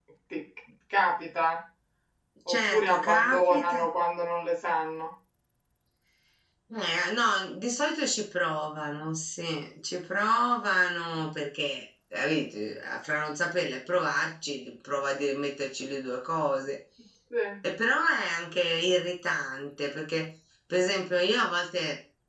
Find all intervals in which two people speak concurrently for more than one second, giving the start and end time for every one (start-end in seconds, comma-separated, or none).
2.5-3.8